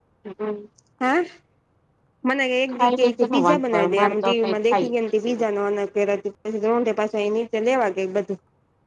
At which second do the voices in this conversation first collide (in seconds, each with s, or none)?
2.7 s